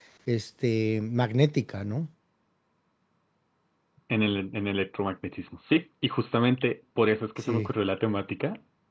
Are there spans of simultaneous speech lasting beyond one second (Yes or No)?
No